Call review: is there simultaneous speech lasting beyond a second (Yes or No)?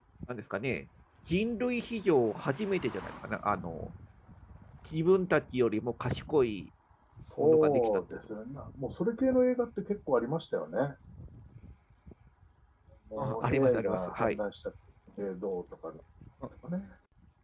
Yes